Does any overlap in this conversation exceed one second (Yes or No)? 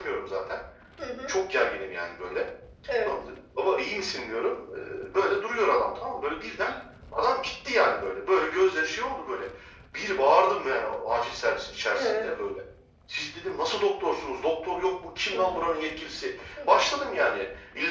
No